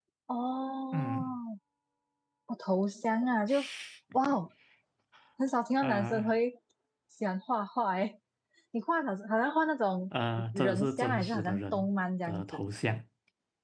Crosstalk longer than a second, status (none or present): present